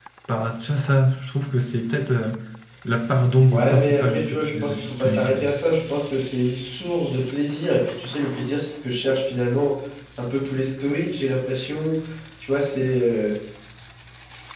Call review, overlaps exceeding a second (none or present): present